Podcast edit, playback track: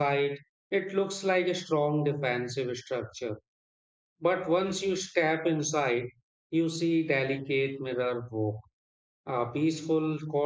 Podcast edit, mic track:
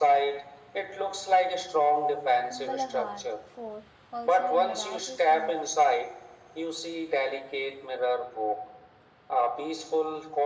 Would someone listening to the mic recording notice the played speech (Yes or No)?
Yes